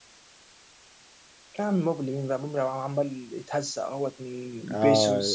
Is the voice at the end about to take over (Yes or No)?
Yes